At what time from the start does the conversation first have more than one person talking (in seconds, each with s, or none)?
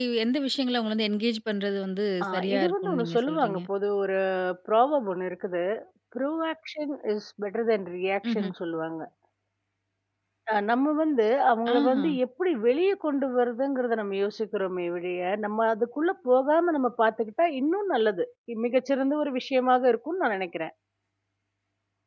2.2 s